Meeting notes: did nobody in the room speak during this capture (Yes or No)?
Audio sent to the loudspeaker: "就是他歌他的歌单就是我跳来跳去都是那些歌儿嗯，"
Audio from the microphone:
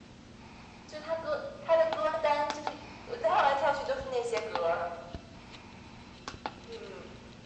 Yes